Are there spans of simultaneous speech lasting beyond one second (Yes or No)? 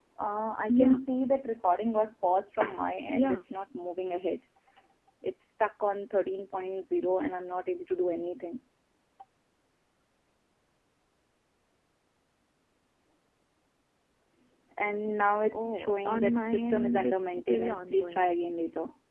Yes